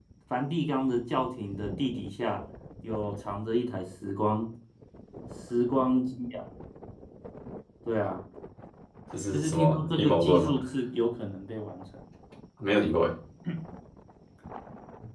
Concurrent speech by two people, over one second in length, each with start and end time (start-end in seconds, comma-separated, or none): 9.3-10.5